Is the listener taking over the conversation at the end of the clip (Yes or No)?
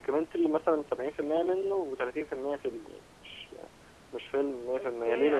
Yes